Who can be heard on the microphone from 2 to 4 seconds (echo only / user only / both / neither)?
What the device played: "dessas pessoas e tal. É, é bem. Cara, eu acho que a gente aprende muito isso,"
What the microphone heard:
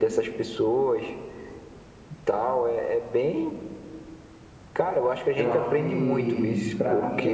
echo only